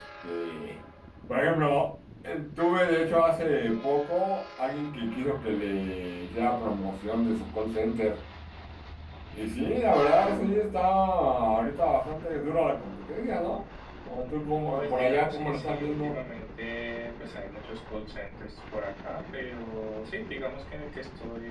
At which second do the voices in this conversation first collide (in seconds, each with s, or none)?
14.2 s